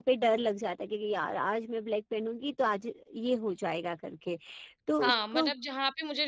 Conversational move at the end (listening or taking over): taking over